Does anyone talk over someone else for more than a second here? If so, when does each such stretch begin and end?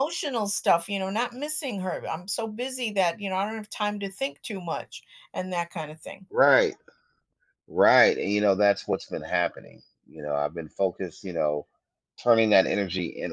none

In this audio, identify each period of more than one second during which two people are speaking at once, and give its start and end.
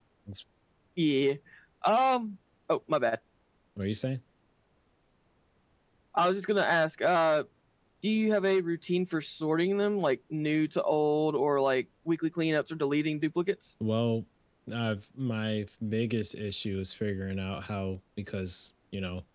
none

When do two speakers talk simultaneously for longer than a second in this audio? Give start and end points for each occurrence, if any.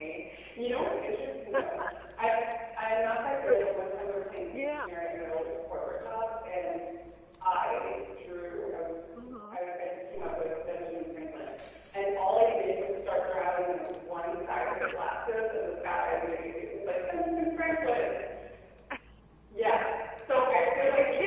none

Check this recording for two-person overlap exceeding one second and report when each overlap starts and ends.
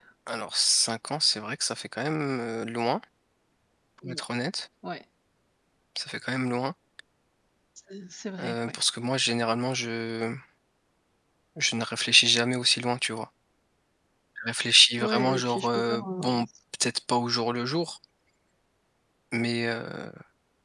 15.0-16.3

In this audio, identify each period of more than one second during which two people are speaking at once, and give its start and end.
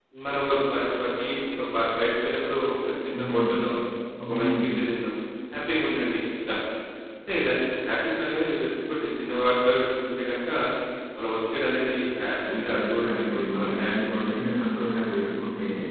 12.5-14.3

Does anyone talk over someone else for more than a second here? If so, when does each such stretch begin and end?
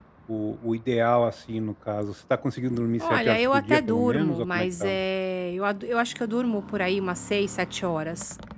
3.0-5.0

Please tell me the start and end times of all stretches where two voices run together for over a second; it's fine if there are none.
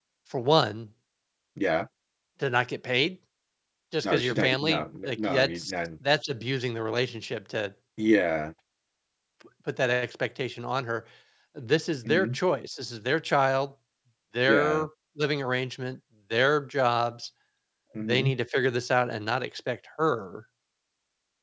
4.0-5.7

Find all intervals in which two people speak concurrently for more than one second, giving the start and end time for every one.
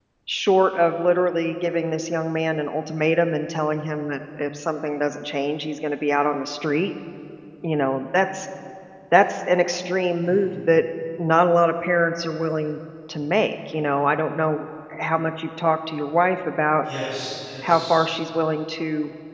none

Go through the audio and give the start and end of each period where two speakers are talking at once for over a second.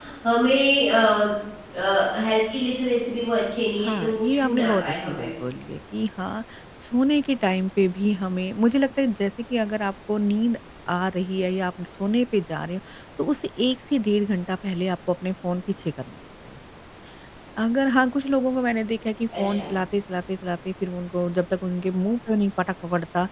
3.8-5.3

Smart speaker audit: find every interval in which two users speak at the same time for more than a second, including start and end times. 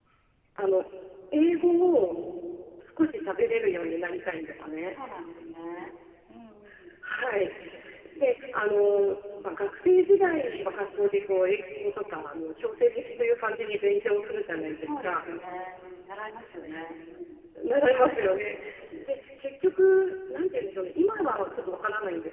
none

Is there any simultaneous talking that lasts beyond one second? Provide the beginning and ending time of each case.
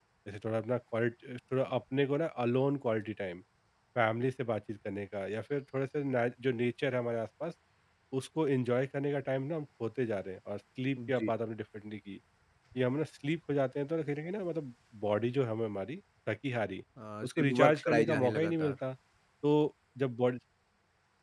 17.2-18.8

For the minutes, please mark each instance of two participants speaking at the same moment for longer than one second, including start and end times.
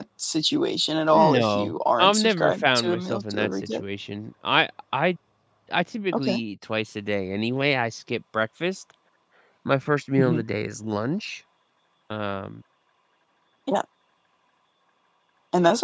1.1-3.8

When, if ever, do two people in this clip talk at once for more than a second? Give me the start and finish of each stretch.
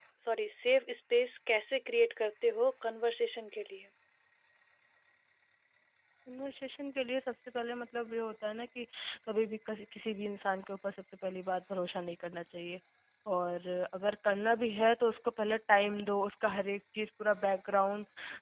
none

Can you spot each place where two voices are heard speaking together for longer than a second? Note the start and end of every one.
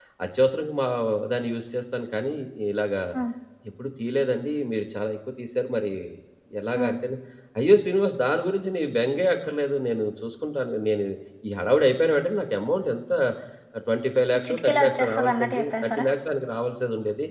14.4-16.1

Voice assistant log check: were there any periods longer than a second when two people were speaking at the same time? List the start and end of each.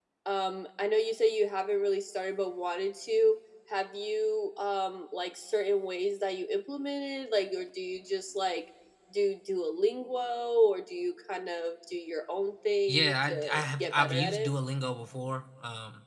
12.9-14.5

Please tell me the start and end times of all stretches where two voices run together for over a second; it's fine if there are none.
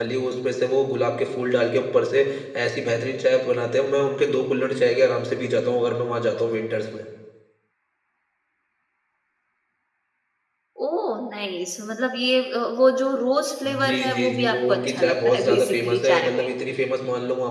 13.6-16.5

